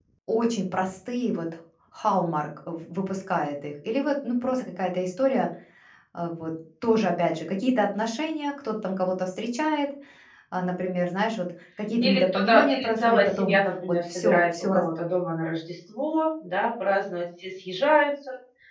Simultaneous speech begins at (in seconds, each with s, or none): 12.0 s